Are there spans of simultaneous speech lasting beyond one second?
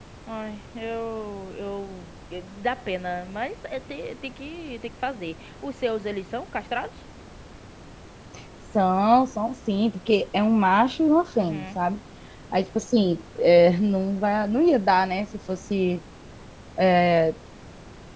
No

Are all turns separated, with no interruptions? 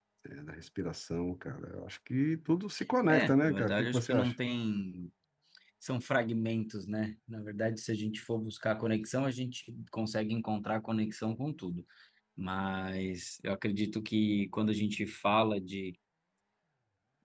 No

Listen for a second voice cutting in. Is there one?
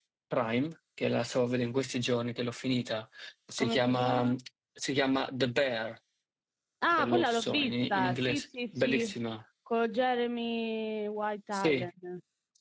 Yes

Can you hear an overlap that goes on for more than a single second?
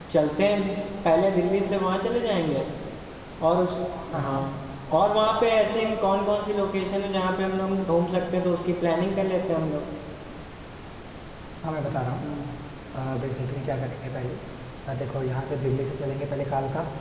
No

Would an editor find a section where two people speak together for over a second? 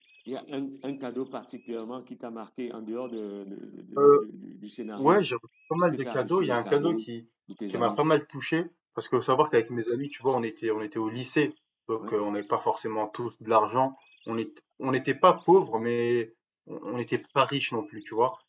Yes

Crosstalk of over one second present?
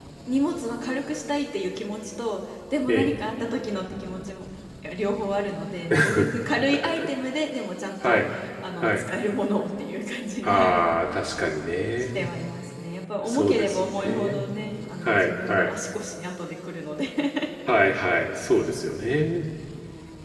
Yes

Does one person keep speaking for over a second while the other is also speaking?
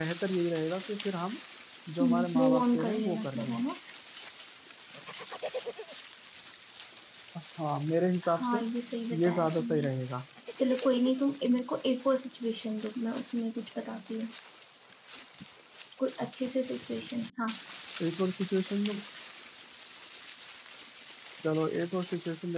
Yes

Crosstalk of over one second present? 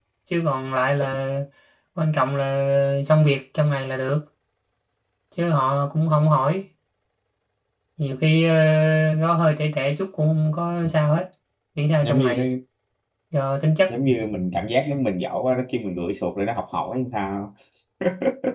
No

